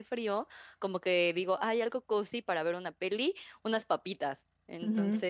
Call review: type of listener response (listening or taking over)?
listening